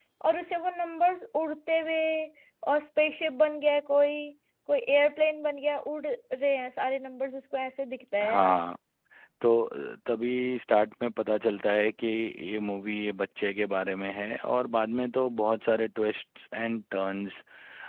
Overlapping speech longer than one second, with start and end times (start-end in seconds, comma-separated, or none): none